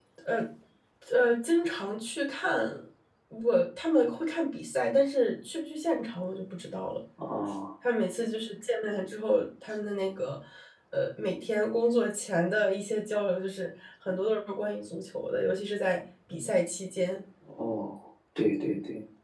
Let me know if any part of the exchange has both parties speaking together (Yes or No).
No